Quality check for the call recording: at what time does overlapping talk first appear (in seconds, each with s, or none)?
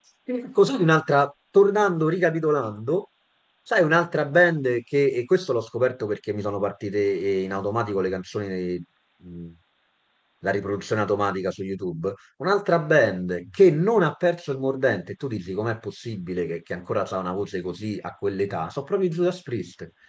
none